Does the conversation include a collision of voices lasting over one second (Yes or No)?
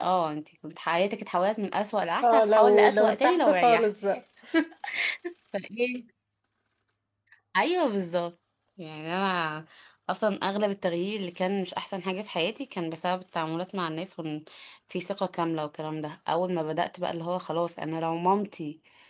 Yes